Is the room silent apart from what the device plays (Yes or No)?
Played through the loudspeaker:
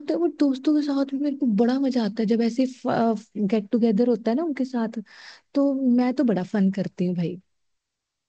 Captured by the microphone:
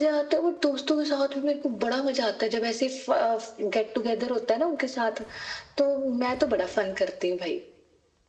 Yes